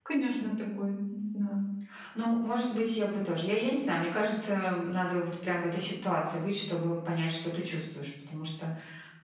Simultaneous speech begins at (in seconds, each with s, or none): none